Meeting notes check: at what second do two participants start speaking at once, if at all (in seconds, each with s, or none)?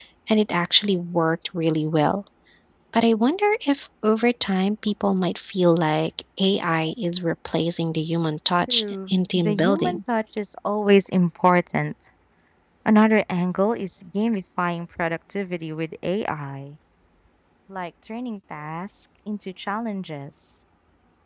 8.7 s